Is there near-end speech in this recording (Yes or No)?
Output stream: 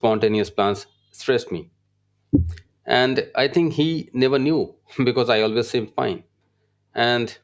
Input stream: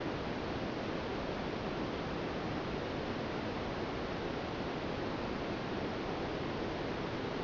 No